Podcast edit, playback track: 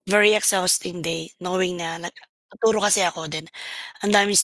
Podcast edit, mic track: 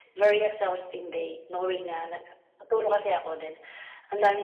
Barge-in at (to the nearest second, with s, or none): none